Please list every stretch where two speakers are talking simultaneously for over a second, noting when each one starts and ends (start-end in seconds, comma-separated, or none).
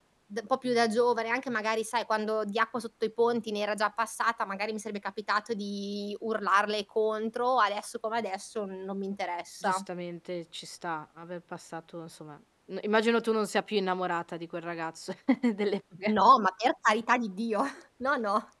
none